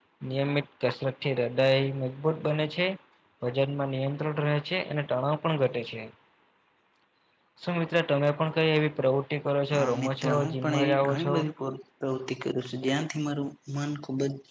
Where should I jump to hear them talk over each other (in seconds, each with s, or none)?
9.7 s